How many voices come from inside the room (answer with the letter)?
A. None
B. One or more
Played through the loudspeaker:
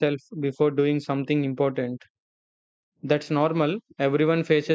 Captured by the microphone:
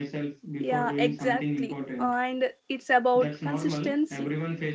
B